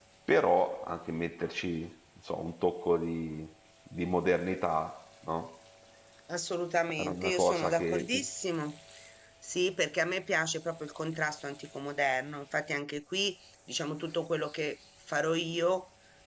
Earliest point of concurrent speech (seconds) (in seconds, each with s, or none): 7.0 s